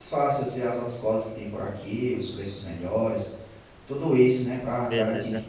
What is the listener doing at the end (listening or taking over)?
listening